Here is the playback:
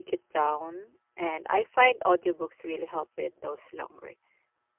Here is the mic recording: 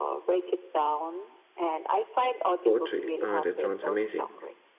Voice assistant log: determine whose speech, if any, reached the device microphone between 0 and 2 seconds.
echo only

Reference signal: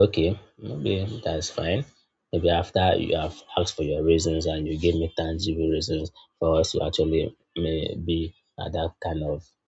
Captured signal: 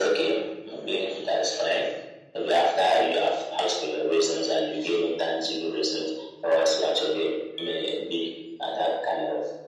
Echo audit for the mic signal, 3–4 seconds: echo only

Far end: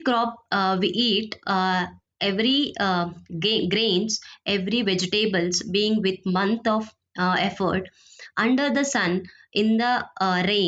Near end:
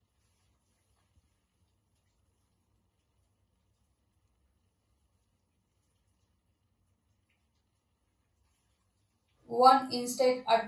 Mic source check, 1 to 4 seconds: neither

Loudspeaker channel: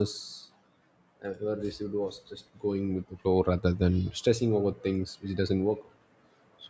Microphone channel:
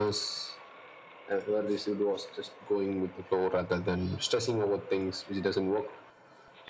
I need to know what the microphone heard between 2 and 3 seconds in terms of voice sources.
echo only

